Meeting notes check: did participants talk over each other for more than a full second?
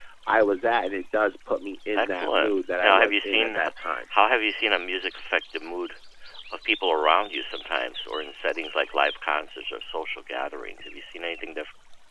Yes, from 2.0 s

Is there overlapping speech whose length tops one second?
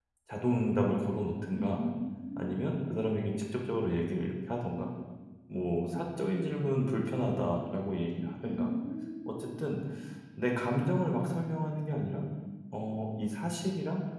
No

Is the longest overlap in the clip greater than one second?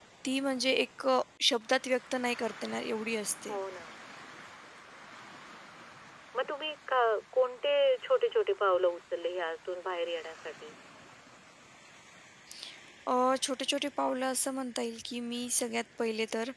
No

